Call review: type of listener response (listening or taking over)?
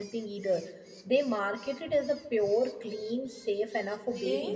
taking over